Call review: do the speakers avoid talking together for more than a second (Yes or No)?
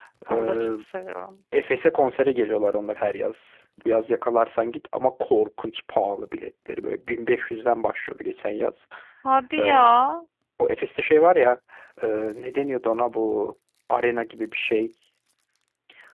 Yes